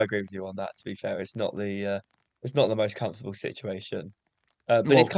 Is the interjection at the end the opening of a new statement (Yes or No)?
No